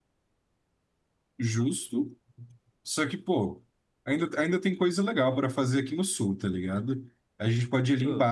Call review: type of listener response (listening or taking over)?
listening